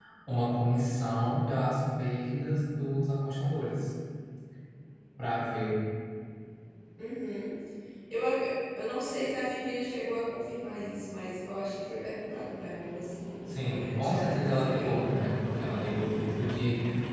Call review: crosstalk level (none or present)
present